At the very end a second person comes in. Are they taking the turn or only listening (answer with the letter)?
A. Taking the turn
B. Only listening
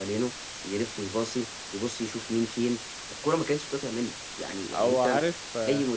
B